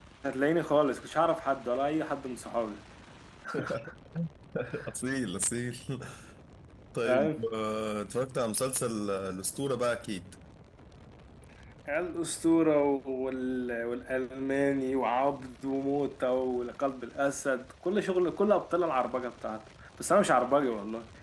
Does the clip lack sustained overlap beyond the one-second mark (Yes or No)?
Yes